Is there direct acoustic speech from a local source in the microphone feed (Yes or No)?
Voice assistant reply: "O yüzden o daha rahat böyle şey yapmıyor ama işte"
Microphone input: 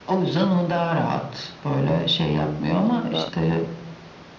Yes